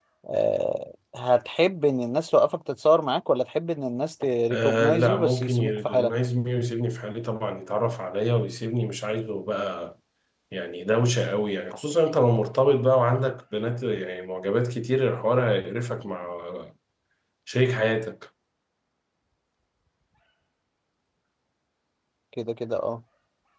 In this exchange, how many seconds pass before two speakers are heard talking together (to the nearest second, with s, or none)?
5 s